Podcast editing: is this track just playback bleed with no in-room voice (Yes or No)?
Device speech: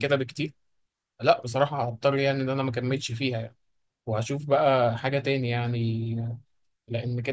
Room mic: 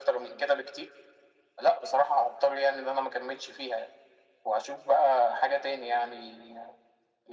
Yes